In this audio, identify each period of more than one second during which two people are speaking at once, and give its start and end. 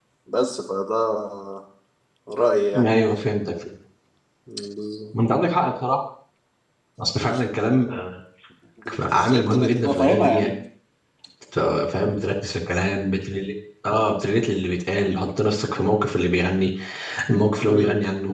9.0-10.5

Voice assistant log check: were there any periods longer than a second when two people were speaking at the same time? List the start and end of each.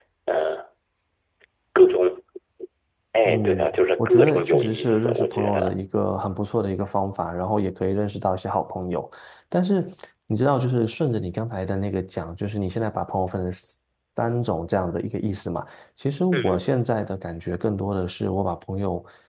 4.0-5.7

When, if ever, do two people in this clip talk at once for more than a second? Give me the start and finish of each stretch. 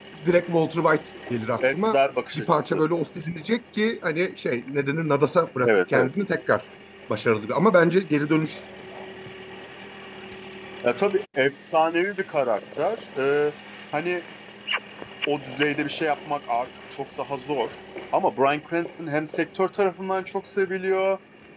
none

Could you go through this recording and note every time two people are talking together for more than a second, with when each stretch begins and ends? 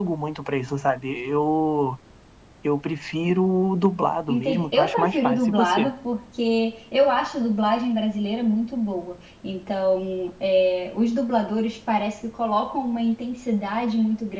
4.3-5.9

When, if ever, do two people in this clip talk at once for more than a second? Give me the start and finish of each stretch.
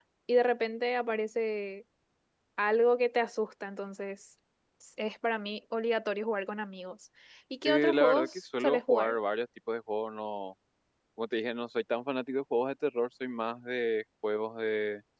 7.6-9.2

